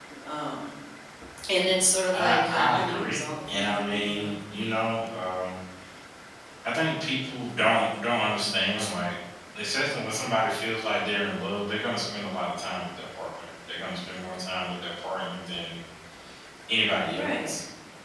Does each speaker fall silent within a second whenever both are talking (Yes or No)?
No